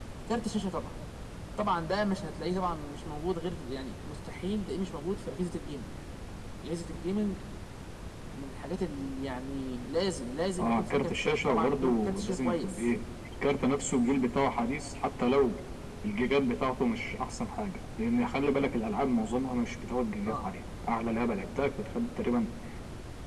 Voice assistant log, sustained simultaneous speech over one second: present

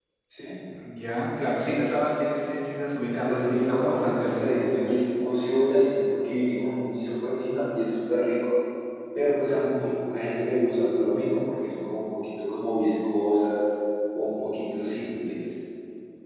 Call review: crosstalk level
present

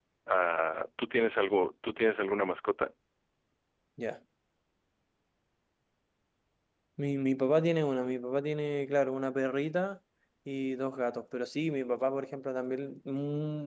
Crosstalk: none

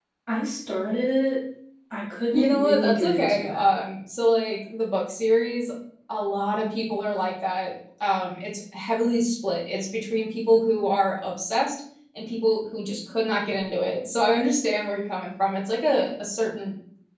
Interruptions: present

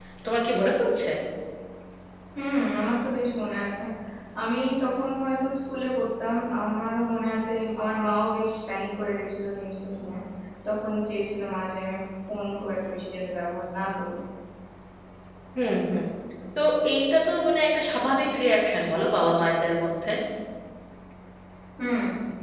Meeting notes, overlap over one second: none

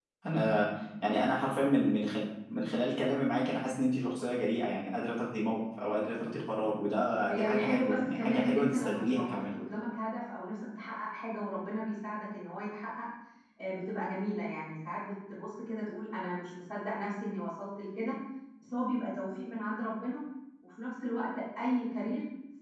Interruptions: present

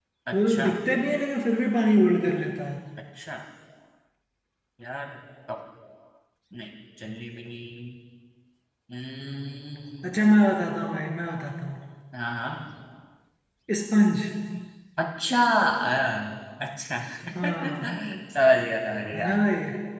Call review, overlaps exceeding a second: none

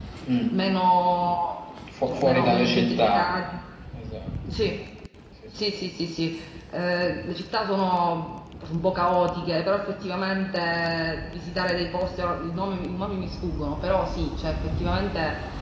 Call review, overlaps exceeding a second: present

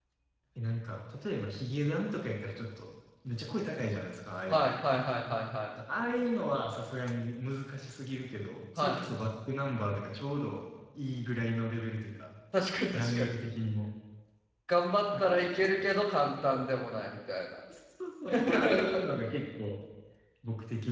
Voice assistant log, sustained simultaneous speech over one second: present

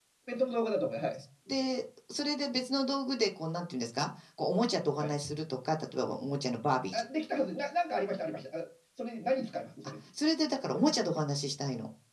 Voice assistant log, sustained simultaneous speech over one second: none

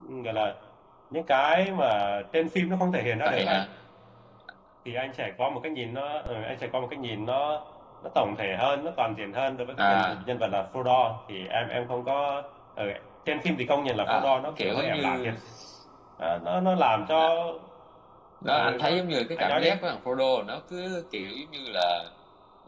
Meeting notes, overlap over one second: present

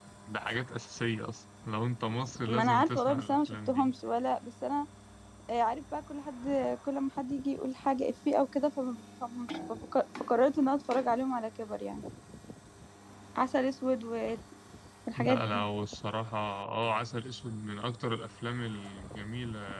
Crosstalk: present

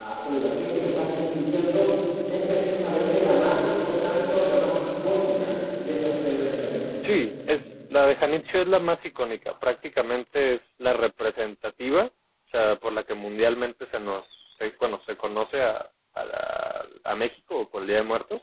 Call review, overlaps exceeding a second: none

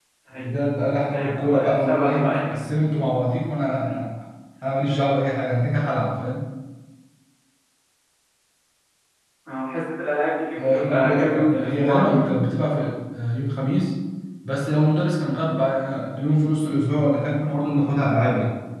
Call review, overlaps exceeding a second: present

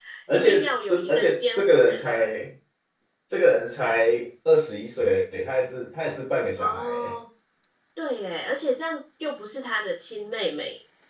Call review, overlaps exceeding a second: present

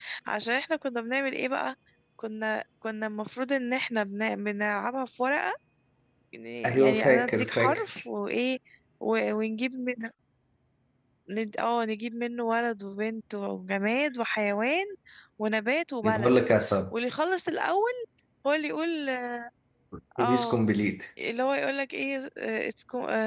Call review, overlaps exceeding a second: present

